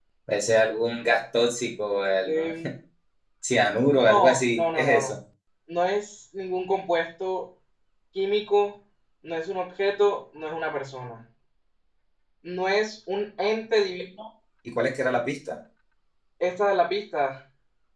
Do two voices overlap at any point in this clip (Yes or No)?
Yes